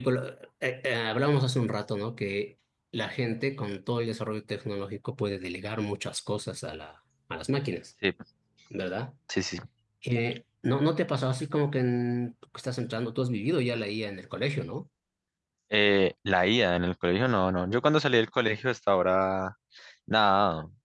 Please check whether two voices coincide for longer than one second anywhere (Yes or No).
No